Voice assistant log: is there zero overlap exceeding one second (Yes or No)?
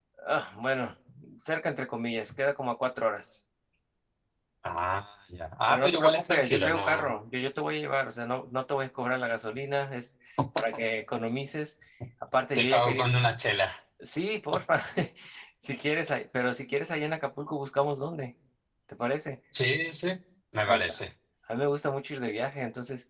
No